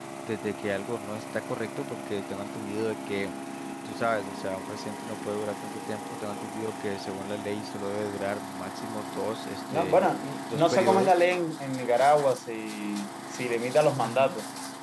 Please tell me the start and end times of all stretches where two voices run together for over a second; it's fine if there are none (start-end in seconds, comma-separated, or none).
9.7-11.2